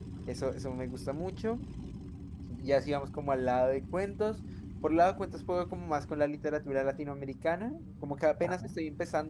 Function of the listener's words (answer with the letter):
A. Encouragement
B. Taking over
A